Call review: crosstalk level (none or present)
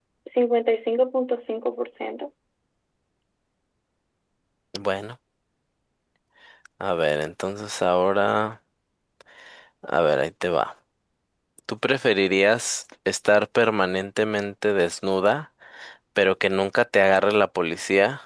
none